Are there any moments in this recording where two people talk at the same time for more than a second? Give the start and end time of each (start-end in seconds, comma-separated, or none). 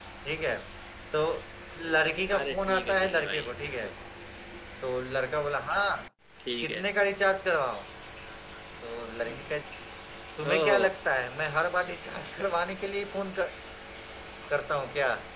2.4-3.9